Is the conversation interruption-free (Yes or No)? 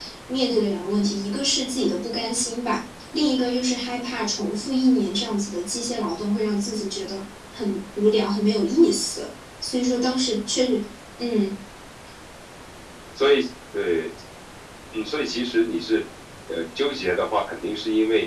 Yes